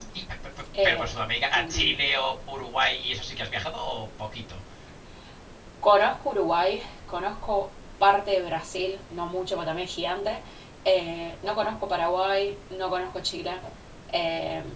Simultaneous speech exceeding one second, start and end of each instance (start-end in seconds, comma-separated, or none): none